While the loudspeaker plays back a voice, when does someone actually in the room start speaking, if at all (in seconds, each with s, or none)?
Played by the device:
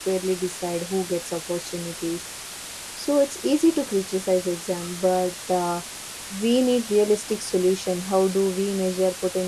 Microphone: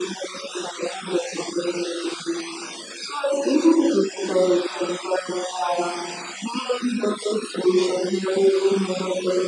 none